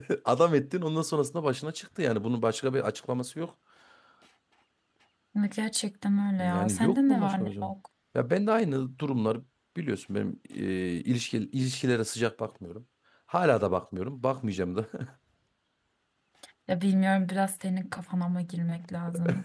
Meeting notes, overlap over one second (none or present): present